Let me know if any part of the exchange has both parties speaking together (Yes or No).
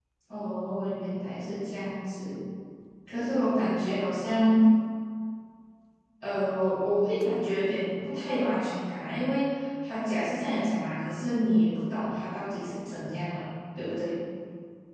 No